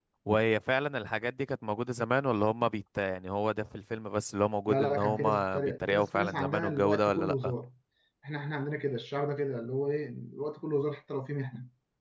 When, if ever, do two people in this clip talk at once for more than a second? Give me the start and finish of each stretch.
4.7-7.5

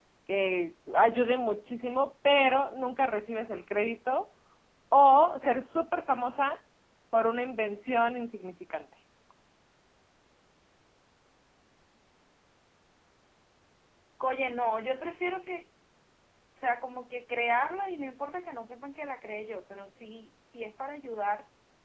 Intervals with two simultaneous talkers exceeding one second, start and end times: none

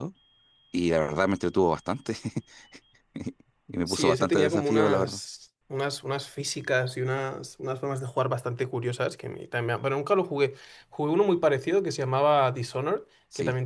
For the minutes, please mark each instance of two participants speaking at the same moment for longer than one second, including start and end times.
3.9-5.2

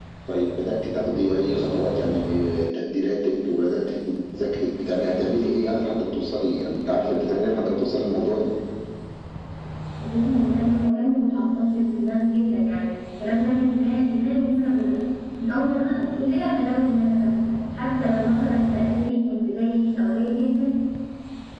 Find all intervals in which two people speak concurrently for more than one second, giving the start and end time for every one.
none

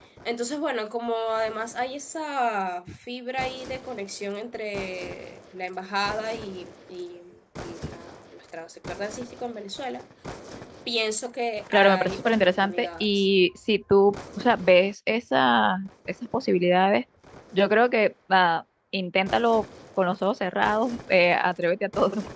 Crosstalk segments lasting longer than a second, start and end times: 11.7-13.2

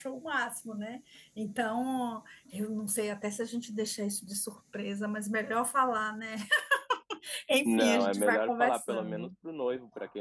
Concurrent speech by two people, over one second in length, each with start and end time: 7.7-9.3

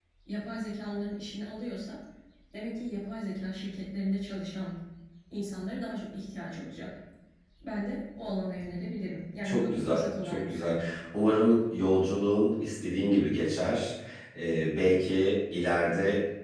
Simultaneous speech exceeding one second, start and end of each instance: 9.4-10.8

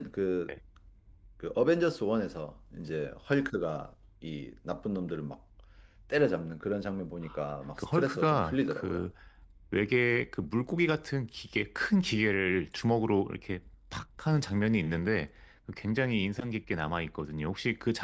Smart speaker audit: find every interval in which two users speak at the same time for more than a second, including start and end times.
7.8-9.0

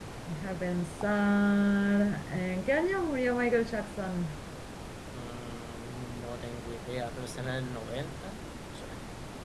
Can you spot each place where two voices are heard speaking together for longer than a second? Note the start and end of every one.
none

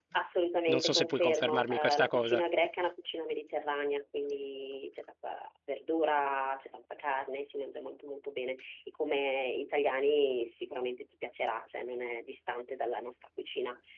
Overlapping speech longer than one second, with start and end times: 0.7-2.4

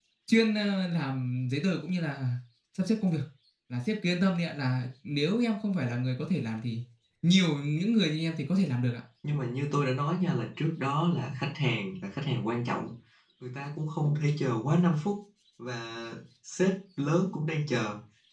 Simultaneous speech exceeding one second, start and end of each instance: none

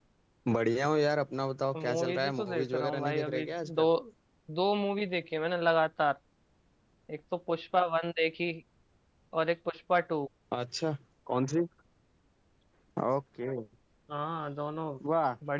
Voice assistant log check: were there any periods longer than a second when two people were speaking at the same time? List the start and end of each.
1.8-3.8

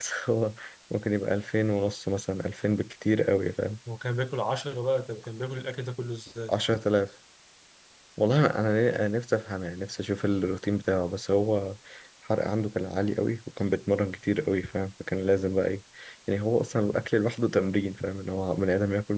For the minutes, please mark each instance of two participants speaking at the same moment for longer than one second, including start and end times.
none

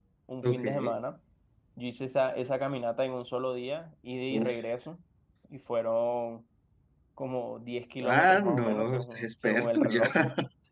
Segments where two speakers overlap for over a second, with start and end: 8.0-10.0

